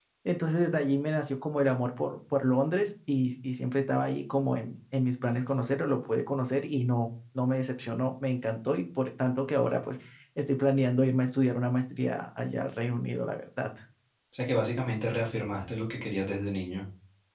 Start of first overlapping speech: none

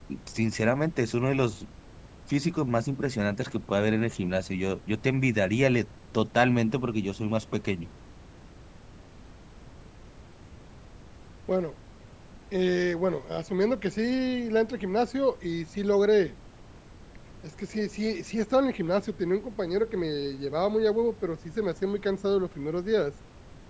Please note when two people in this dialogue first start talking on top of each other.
none

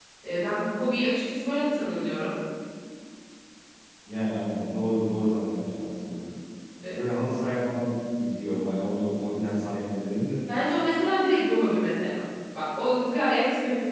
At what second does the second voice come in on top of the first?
none

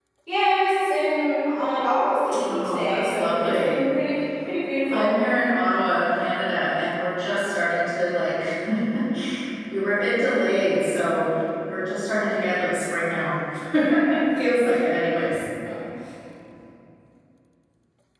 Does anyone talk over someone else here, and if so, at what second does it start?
2.4 s

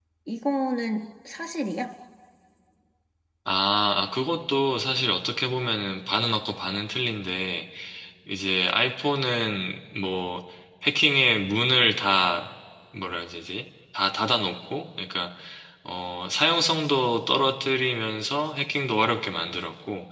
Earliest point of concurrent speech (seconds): none

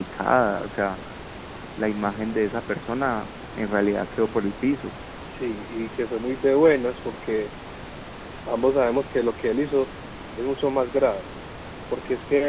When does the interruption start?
none

